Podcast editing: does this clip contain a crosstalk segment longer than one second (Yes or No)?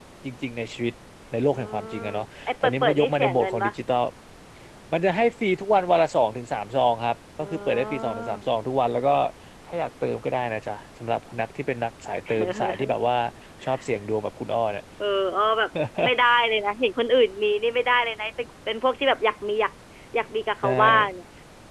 Yes